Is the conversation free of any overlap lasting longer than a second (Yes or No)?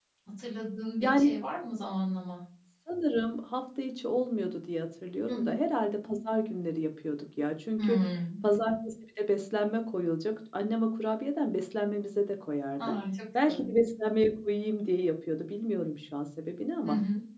Yes